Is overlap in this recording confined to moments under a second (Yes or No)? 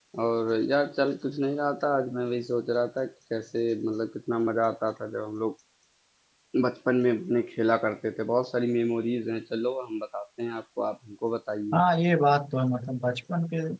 Yes